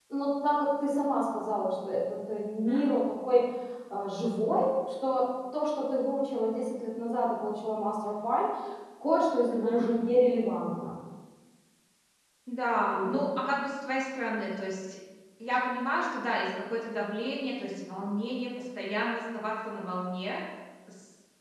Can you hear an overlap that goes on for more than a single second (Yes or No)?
No